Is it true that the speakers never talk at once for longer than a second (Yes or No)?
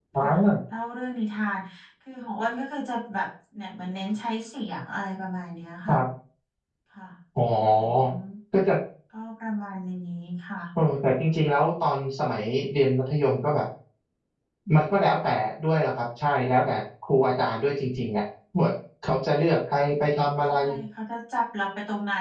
Yes